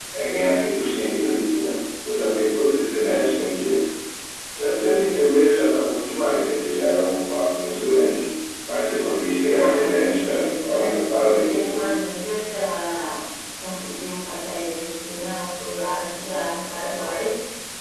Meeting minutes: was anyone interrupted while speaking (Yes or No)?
Yes